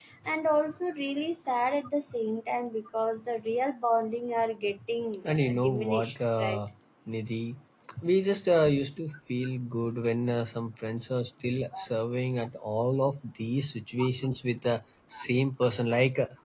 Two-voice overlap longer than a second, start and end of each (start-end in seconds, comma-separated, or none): 5.3-6.6